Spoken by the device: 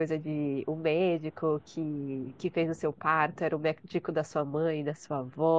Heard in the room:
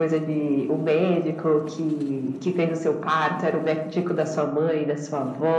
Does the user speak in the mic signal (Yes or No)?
No